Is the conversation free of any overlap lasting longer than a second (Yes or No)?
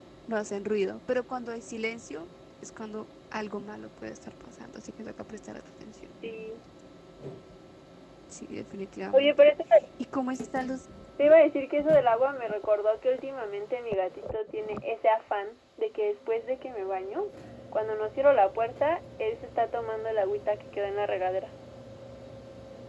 Yes